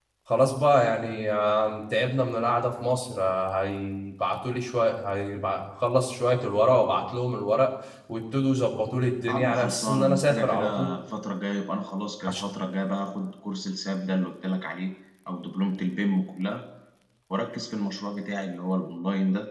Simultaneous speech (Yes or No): Yes